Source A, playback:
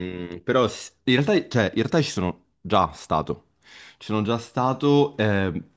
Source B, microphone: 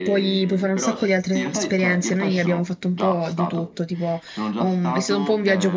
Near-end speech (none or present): present